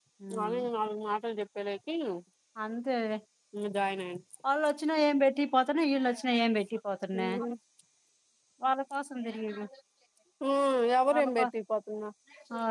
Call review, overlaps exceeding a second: none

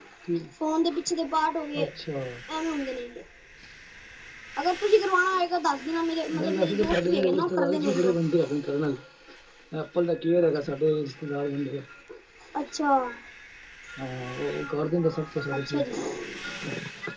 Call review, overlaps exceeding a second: present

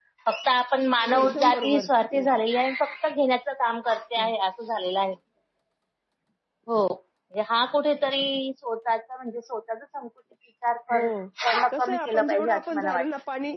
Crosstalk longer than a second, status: present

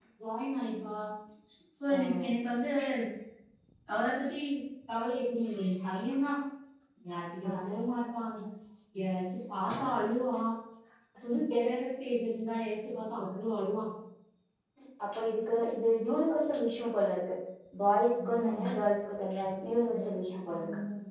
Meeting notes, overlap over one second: none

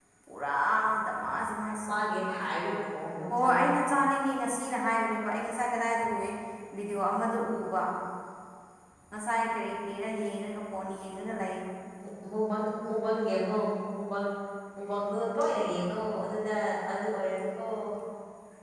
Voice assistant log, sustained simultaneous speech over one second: none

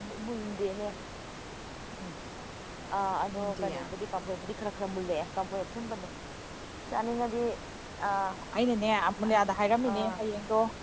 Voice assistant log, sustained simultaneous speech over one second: none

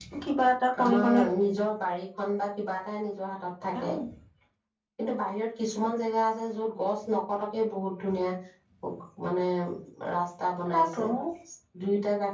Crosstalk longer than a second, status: none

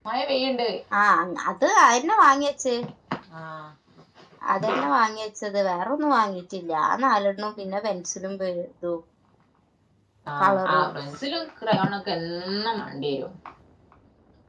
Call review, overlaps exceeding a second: none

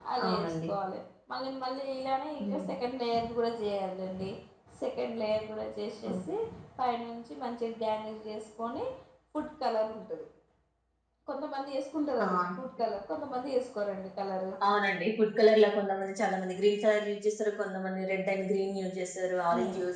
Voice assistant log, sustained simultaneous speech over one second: none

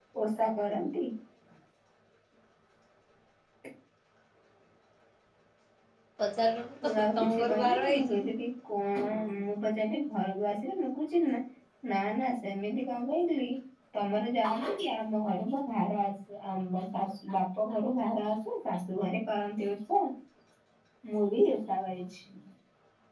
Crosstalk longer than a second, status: present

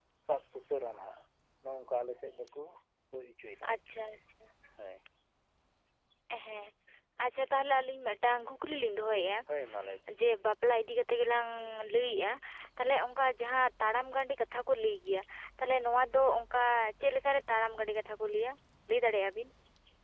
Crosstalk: none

